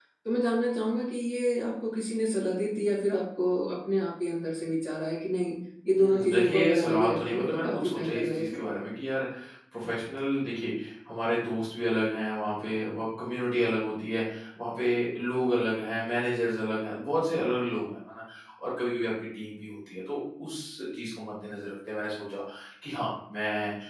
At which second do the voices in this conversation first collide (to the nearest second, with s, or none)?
6 s